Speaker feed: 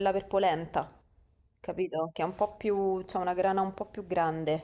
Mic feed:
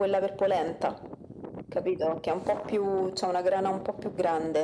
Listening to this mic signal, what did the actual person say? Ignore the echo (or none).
none